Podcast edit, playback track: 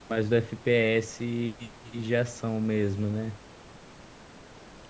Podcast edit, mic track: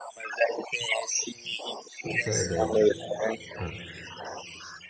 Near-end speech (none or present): present